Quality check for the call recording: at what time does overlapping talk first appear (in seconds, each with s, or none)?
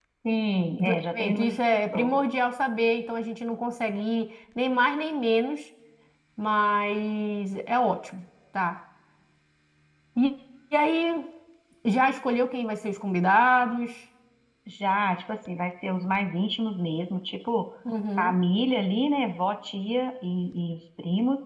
0.8 s